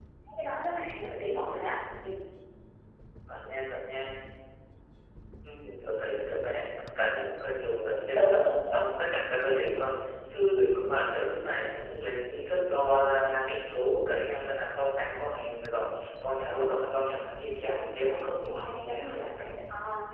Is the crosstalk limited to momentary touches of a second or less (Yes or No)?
No